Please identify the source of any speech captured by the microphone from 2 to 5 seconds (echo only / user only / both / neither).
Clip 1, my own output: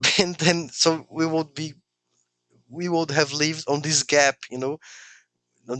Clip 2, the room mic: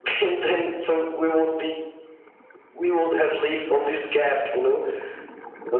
echo only